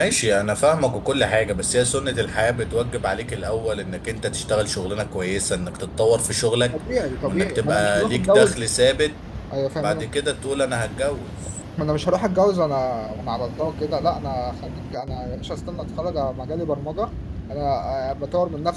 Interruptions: present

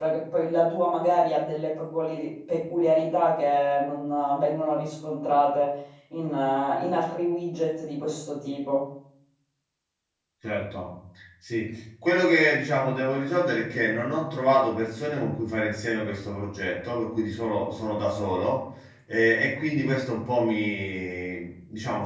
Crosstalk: none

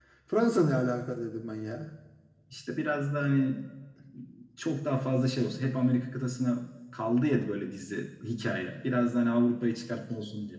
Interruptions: none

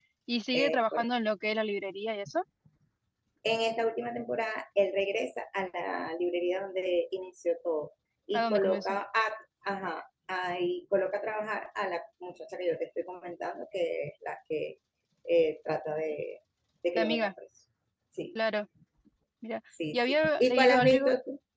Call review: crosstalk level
present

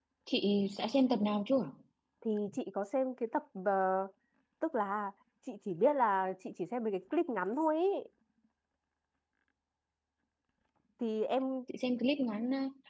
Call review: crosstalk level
none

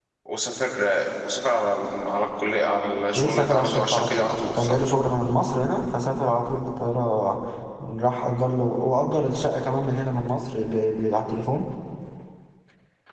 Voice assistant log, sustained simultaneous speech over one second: present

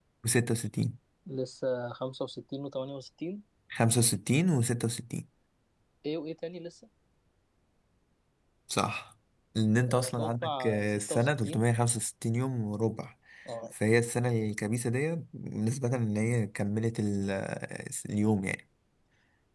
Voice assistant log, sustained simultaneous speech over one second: present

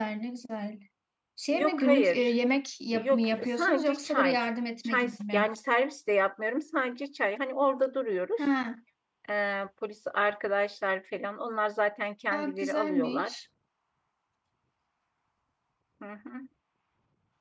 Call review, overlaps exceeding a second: present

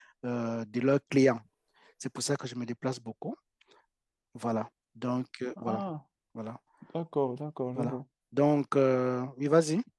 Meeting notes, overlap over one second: none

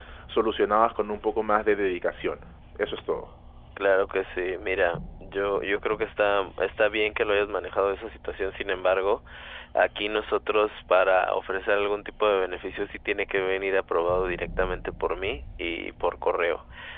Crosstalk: none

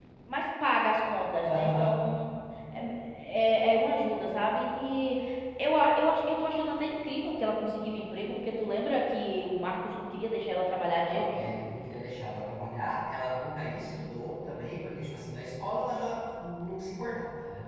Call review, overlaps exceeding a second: none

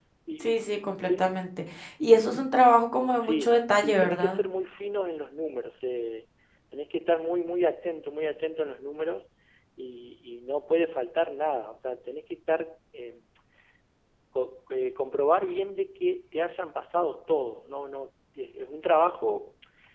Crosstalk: present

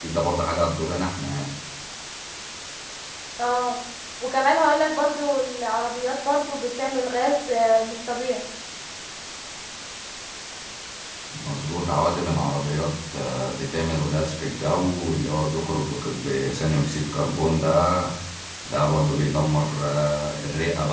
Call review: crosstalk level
none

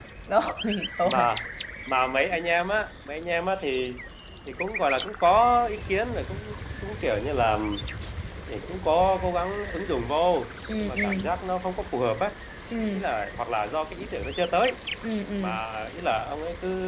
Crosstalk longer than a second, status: none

